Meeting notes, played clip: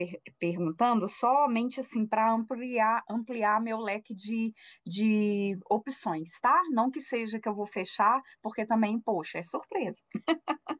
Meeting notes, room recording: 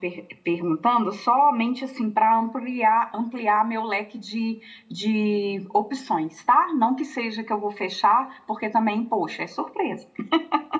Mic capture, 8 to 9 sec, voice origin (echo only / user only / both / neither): echo only